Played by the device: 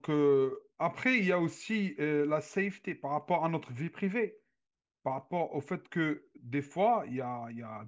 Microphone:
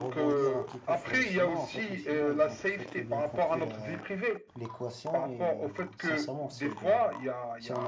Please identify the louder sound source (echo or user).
echo